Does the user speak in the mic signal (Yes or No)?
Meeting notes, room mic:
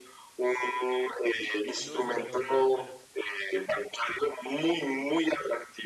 Yes